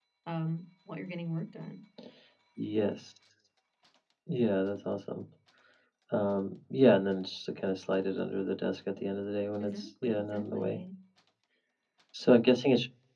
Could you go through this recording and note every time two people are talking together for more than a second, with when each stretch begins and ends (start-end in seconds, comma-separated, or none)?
9.6-10.8